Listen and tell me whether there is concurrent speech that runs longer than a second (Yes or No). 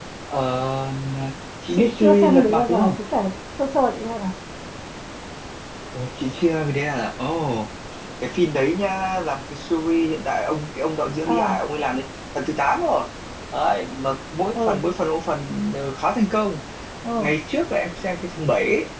Yes